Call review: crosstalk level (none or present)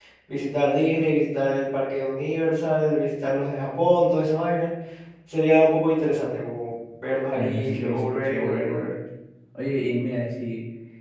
present